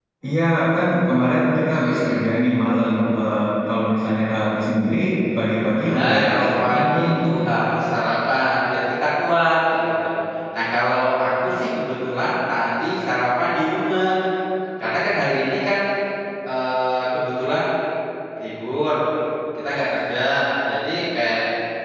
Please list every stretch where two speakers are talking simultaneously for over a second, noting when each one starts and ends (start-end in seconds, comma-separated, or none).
5.8-7.1